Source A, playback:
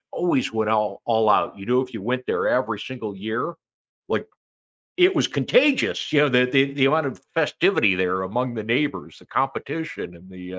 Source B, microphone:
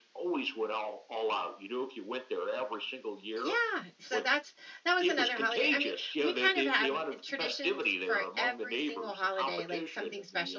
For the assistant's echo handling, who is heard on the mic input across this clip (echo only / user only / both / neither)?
both